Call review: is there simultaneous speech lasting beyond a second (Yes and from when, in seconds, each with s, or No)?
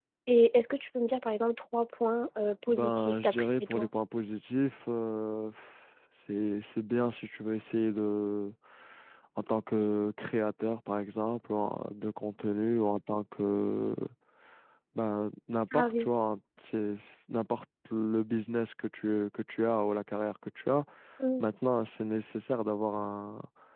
Yes, from 2.7 s